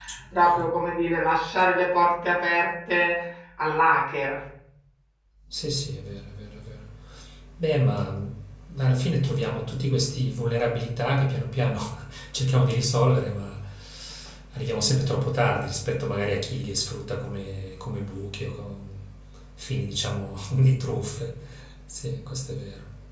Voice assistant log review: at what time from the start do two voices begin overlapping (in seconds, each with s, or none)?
none